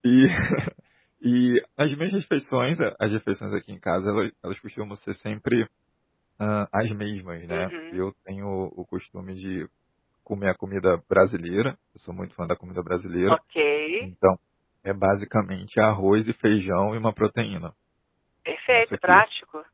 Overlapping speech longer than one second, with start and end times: none

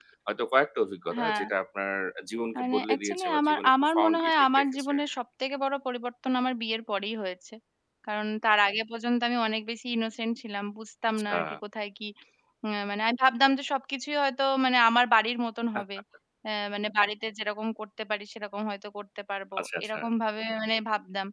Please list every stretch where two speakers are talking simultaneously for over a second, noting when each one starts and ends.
2.6-5.0

